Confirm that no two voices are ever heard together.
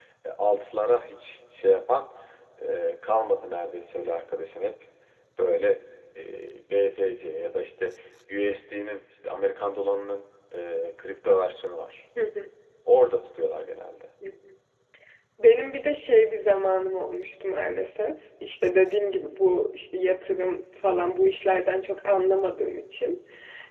Yes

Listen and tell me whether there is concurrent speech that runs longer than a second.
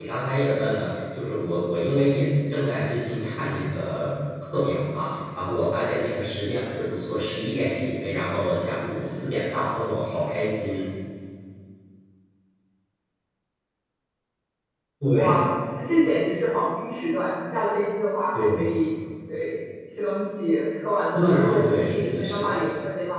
Yes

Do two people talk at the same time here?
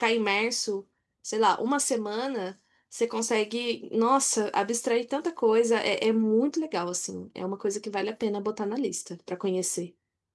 No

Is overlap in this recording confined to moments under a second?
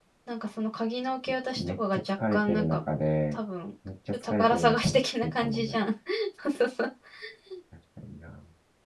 No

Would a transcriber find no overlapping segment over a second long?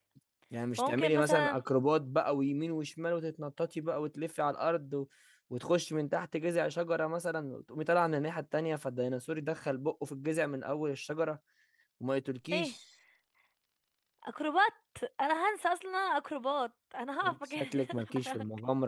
No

